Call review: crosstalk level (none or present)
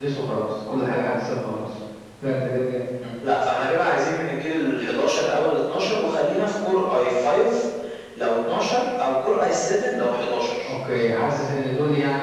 none